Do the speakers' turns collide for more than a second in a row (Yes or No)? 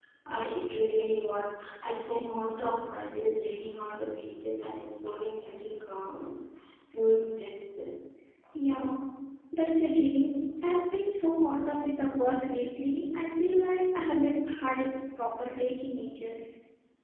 No